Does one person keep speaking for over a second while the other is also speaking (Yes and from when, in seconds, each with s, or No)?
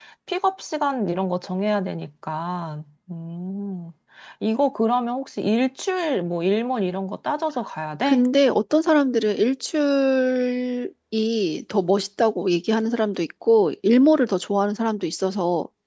No